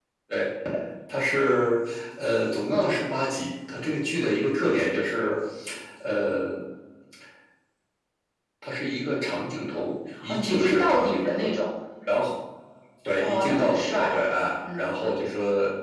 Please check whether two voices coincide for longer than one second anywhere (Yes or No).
Yes